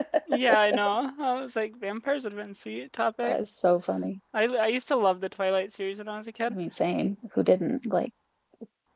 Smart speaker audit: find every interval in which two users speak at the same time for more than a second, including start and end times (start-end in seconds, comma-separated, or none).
none